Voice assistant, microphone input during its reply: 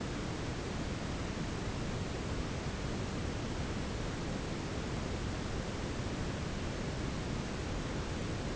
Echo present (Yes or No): No